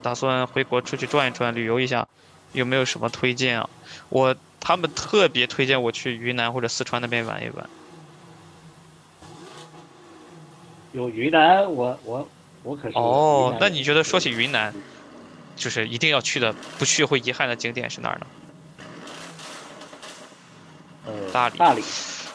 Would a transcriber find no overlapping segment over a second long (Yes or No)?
No